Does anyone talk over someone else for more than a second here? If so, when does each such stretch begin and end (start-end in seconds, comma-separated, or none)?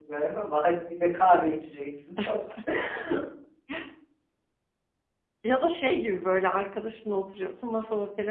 none